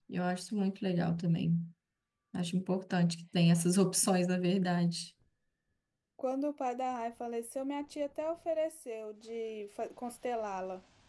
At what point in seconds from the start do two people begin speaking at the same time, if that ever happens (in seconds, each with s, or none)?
none